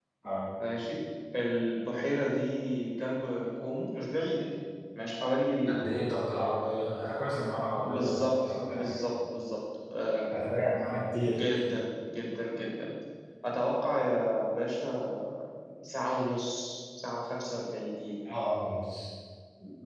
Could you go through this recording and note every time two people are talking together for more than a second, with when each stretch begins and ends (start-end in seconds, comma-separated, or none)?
7.8-9.1